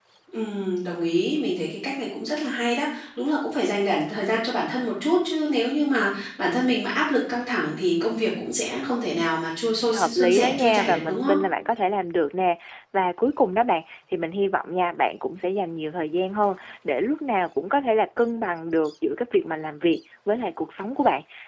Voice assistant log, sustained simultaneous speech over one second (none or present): present